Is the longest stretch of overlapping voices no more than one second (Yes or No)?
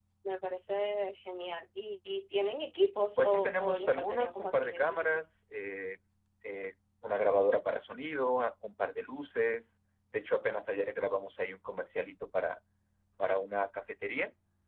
No